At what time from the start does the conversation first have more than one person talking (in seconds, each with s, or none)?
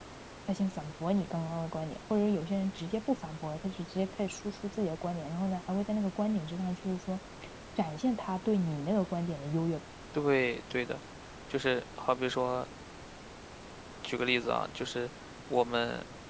none